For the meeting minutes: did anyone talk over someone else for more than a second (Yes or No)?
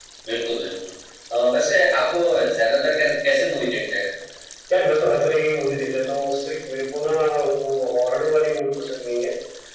No